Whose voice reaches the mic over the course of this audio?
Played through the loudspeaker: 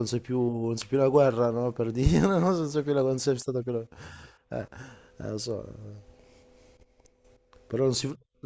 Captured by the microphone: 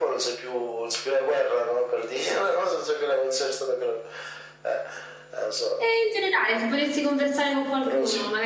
both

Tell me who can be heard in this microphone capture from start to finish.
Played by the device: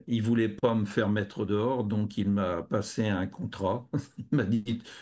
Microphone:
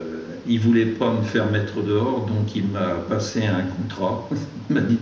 echo only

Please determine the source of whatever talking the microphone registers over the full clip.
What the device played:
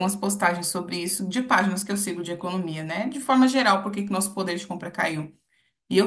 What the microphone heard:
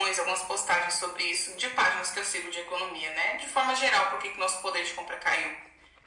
echo only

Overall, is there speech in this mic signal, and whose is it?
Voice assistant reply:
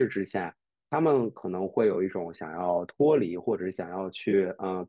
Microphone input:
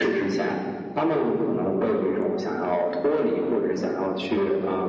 echo only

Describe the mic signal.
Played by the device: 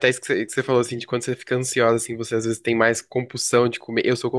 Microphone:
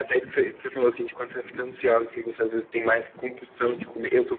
echo only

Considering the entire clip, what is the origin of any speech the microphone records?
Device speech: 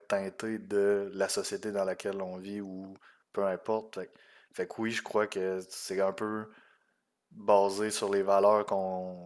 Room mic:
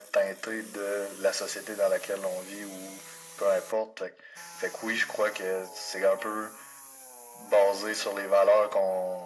echo only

